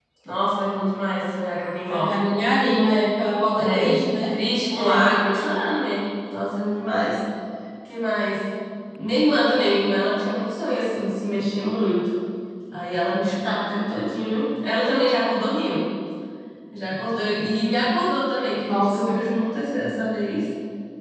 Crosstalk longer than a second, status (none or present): none